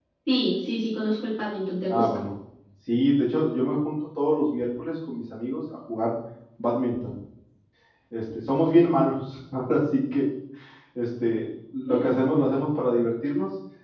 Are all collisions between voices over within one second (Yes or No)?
Yes